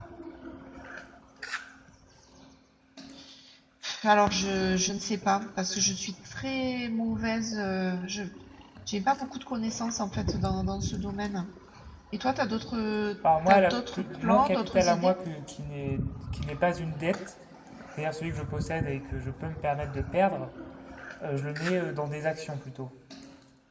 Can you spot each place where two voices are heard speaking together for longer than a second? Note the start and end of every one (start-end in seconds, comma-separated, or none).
13.5-15.2